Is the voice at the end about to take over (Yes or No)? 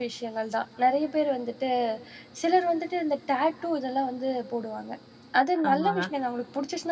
No